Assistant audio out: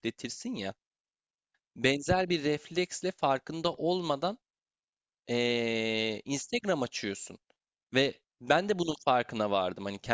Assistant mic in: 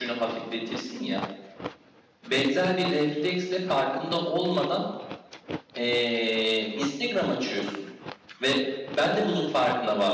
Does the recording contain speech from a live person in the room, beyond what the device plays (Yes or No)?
No